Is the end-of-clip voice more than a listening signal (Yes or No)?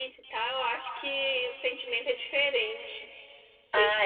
Yes